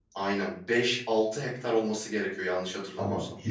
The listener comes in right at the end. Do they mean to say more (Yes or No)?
Yes